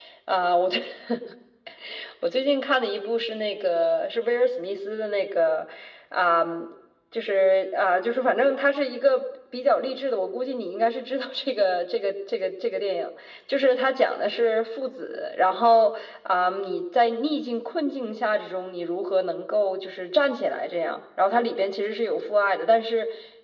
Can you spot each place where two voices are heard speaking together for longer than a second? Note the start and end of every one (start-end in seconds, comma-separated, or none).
none